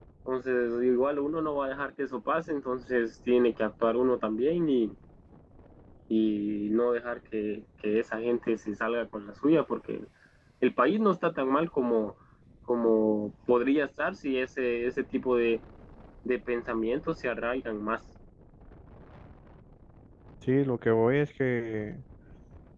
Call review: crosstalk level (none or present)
none